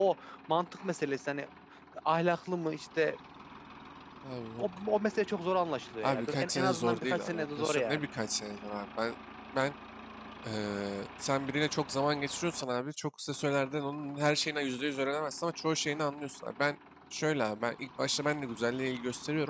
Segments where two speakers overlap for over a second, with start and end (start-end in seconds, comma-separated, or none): 6.0-8.0